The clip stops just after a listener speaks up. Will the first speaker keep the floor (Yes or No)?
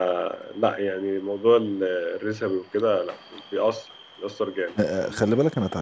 No